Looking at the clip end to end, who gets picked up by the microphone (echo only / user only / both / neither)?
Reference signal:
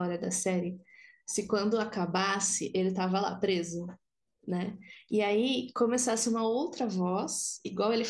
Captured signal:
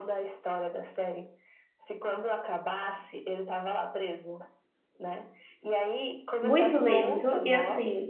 both